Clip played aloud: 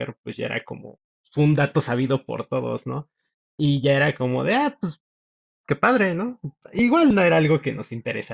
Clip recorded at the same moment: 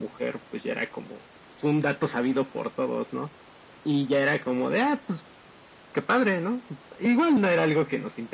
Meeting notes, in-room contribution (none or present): none